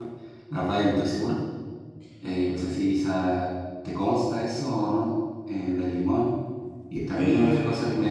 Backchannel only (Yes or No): Yes